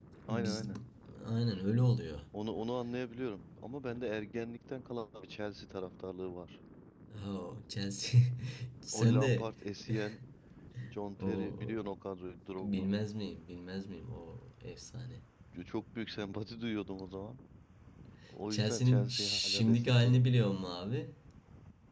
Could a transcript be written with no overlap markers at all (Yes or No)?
No